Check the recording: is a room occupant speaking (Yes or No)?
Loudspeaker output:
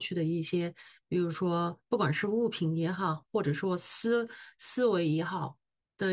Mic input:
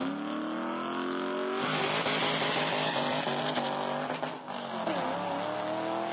No